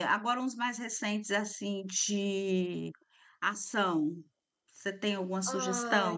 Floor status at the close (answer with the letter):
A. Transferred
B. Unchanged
A